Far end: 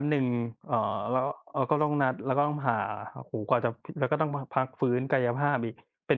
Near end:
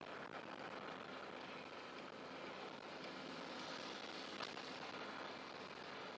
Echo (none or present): none